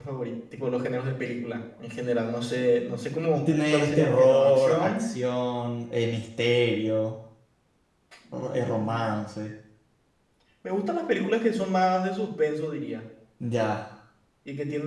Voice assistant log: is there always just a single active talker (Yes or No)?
No